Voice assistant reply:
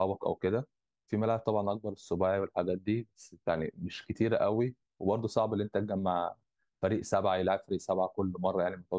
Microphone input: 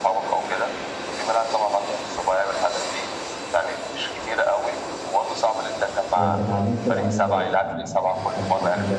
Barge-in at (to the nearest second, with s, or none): 6 s